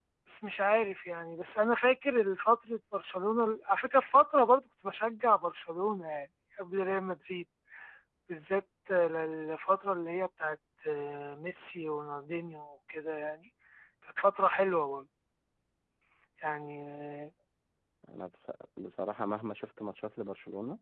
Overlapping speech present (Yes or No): No